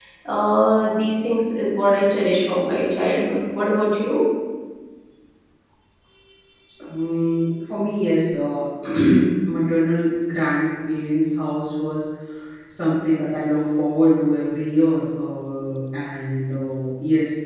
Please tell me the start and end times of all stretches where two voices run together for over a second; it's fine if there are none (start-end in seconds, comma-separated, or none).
none